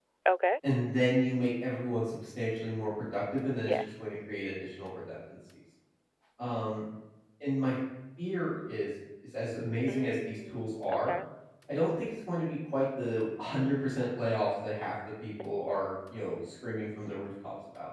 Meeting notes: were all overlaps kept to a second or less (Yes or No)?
No